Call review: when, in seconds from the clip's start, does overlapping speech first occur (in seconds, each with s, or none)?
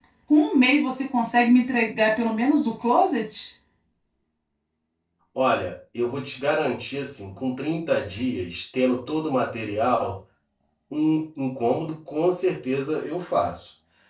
none